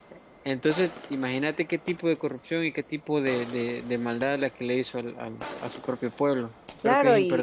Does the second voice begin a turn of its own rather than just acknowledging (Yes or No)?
Yes